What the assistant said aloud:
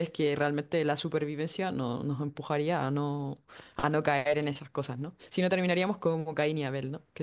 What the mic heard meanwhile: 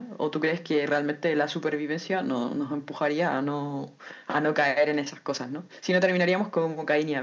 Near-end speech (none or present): none